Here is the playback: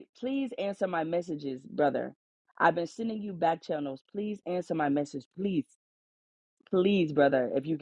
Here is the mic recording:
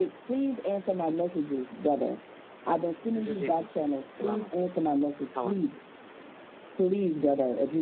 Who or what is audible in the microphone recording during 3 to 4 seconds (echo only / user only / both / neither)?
both